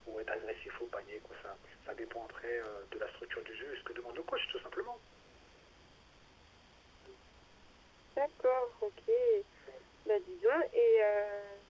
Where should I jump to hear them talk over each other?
none

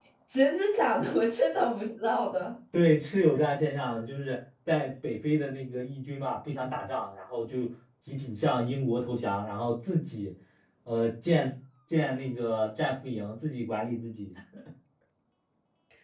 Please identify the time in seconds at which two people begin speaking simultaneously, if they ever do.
none

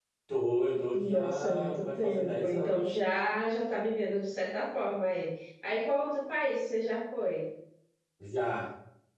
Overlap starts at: 1 s

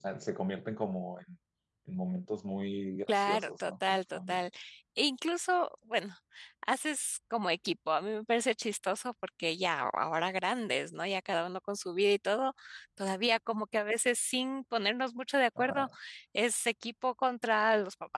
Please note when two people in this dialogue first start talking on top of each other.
3 s

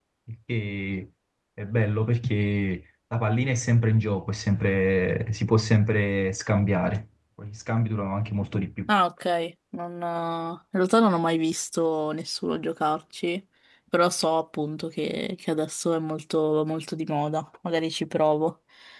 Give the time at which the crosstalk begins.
none

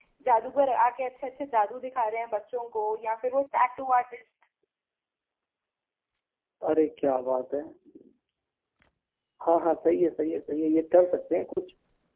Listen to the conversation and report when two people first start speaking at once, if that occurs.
none

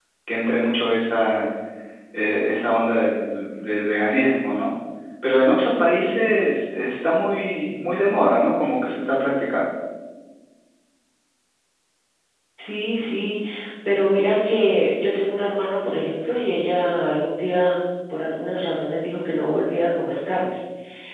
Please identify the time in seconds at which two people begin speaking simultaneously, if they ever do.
none

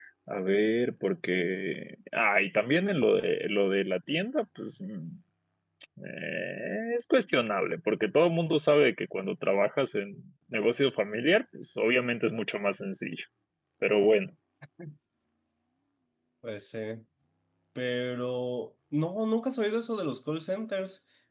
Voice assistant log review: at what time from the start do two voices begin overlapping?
none

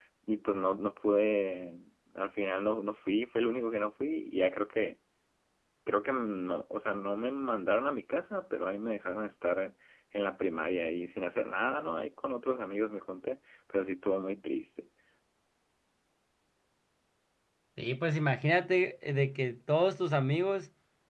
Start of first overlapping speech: none

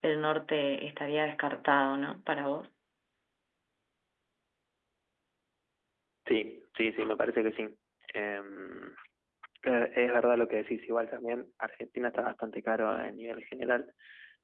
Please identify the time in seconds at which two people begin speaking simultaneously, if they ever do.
none

